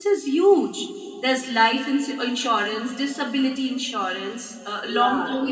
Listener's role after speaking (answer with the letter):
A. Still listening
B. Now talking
B